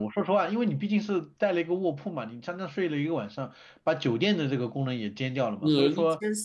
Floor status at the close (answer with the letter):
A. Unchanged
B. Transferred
B